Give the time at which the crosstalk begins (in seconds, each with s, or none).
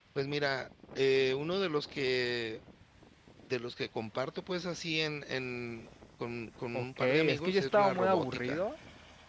6.7 s